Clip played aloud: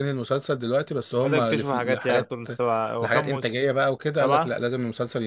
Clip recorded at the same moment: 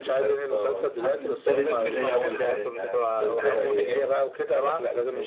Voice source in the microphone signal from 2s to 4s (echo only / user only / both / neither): both